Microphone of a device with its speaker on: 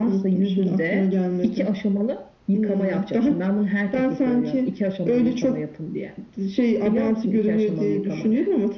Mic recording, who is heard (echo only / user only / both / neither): echo only